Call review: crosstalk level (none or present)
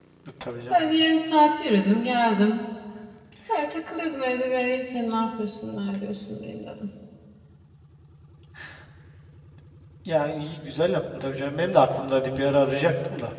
none